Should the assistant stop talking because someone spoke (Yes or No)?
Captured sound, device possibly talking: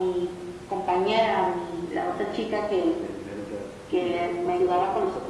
No